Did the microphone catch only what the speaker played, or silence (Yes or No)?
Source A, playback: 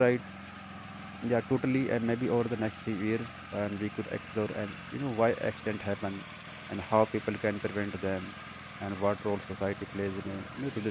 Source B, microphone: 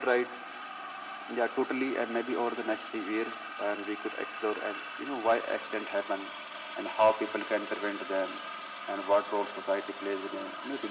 Yes